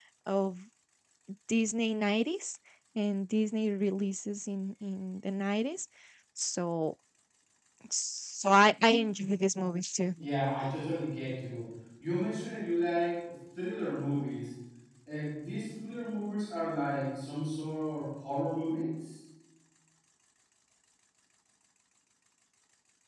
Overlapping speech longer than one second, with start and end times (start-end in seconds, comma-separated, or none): none